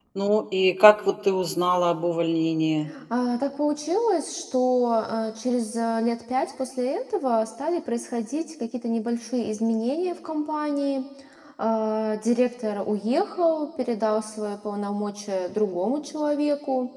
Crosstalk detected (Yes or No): No